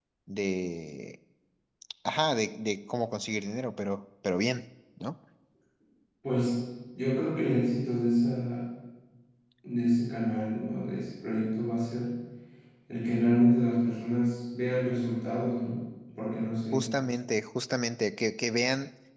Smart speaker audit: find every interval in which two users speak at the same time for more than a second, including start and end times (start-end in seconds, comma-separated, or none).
none